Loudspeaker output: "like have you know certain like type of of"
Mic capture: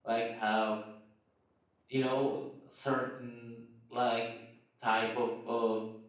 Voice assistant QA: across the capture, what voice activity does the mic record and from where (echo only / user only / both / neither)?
echo only